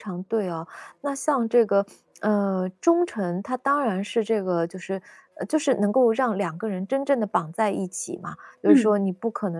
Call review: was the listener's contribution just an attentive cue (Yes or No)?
Yes